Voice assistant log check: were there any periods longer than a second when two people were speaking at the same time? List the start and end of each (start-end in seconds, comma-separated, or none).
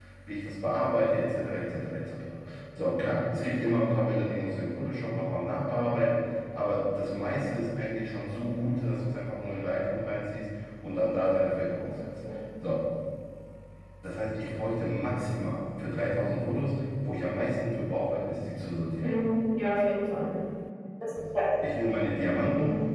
none